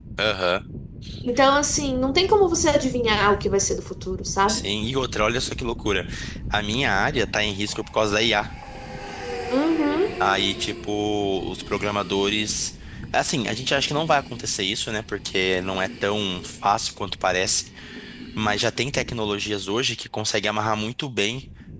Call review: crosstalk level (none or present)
none